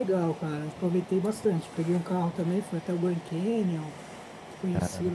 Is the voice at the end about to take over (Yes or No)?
No